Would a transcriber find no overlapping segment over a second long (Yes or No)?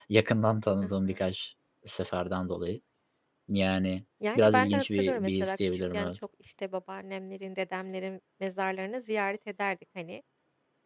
No